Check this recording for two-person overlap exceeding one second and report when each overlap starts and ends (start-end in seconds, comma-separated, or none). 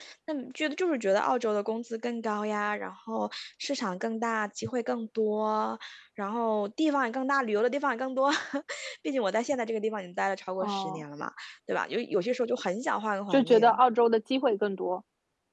none